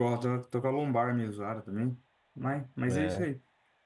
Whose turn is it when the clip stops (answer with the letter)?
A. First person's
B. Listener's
A